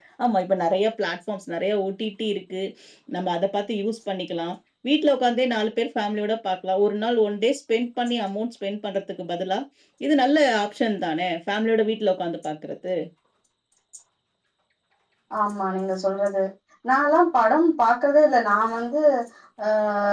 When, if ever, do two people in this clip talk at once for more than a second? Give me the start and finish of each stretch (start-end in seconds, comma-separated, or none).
none